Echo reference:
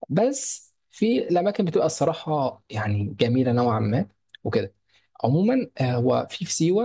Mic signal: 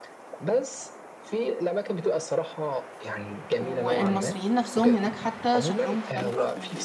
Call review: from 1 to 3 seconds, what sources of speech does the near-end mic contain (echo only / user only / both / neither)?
echo only